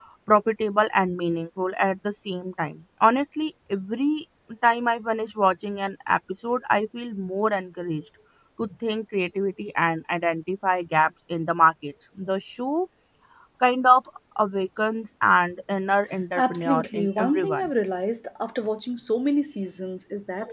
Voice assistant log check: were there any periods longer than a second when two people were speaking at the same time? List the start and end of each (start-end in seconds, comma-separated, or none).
16.4-17.7